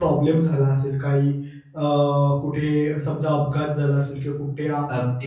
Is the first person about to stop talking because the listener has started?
No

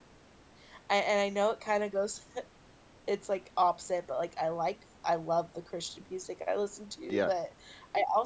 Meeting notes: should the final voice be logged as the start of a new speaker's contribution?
No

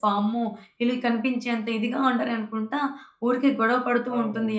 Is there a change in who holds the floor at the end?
No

